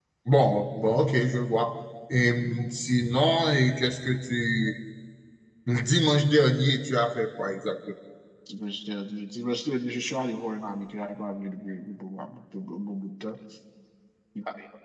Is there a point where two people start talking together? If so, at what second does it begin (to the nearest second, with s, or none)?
none